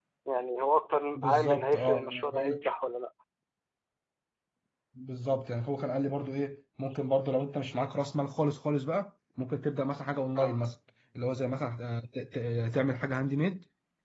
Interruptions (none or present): present